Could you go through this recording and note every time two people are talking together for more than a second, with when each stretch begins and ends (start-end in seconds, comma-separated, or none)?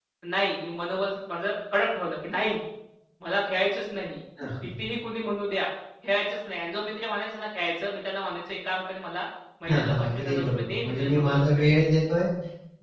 9.7-11.7